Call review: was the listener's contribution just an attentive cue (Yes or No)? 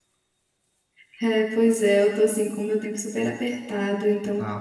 Yes